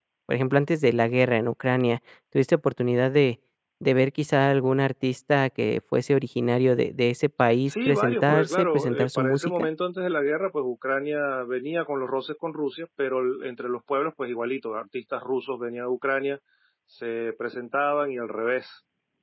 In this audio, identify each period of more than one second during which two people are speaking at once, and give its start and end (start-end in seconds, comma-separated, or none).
7.7-9.5